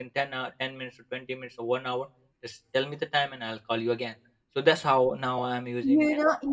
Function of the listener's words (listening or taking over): taking over